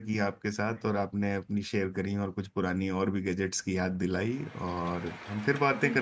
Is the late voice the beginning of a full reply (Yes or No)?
Yes